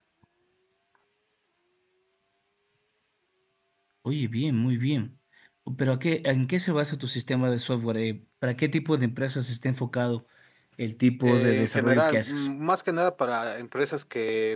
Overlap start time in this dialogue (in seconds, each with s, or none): 11.2 s